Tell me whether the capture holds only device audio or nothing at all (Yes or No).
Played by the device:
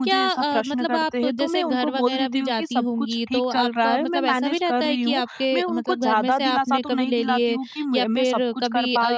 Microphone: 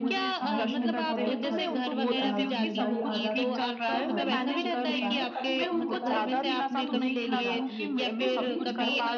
No